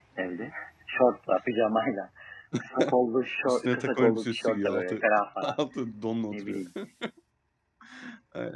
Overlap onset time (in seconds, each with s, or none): 3.5 s